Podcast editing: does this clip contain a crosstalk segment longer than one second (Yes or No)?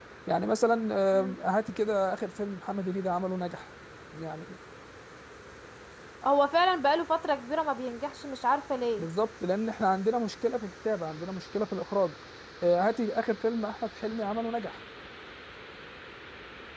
No